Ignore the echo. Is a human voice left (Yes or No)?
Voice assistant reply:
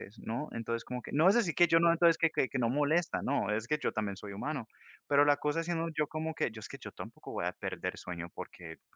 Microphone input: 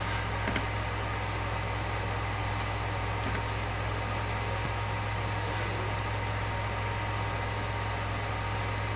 No